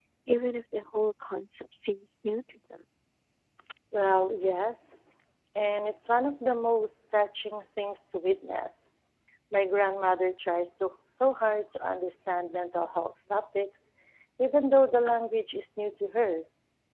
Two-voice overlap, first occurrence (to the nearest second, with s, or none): none